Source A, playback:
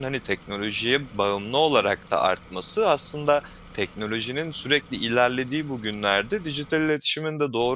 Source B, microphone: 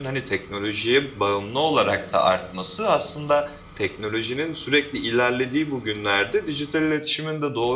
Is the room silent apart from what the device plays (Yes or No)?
Yes